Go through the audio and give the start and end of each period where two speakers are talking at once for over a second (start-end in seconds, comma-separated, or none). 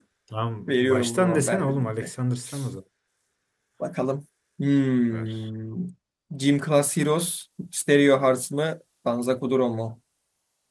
0.7-2.1